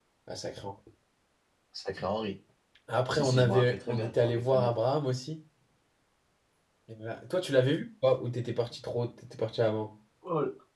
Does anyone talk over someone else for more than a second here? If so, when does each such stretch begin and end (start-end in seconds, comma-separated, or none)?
3.1-4.7